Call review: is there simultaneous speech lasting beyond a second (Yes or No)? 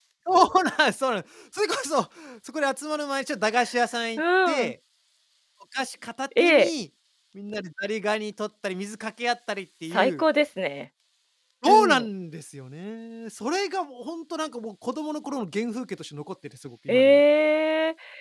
No